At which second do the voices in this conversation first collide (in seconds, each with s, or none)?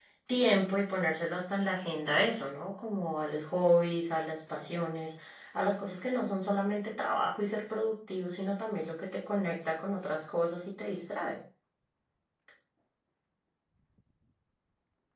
none